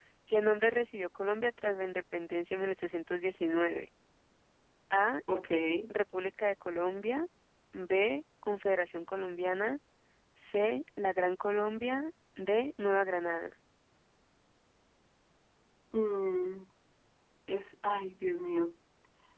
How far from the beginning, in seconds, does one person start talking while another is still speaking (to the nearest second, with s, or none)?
none